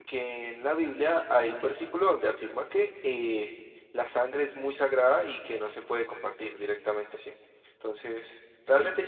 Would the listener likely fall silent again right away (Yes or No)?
Yes